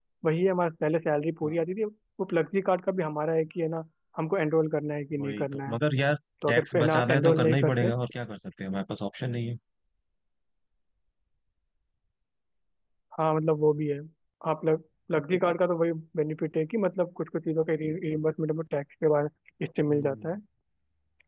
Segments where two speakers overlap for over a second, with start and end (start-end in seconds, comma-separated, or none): 6.5-7.9